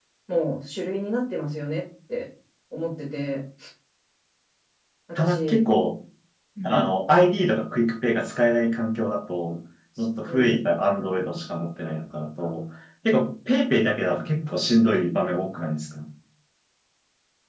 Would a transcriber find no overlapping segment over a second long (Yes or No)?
Yes